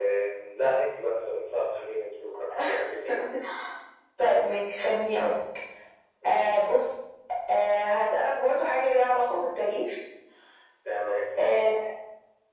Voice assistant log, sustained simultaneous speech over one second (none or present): none